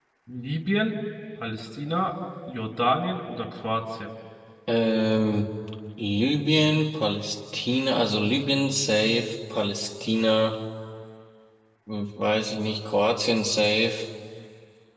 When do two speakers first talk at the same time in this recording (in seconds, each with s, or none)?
none